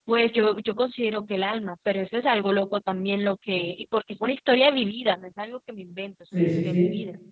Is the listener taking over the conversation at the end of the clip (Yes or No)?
Yes